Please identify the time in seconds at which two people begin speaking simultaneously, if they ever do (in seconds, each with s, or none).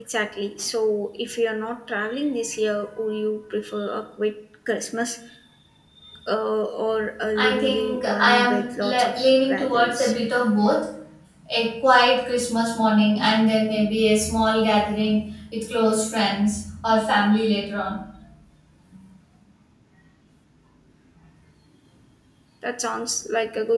7.4 s